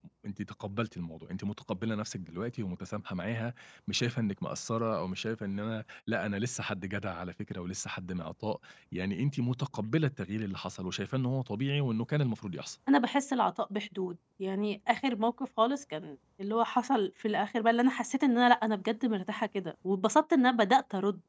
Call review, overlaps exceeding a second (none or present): none